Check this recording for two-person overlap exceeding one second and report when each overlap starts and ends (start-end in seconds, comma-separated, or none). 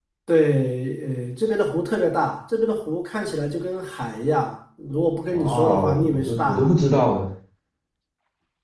5.3-6.8